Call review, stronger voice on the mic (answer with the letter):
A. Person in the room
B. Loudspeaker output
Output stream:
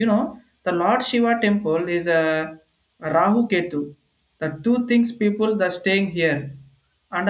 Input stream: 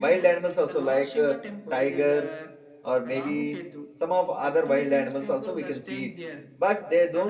A